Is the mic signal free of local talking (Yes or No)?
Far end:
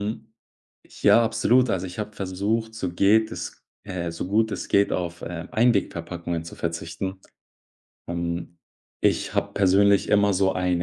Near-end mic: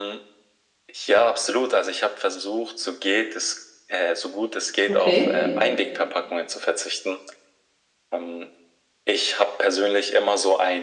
No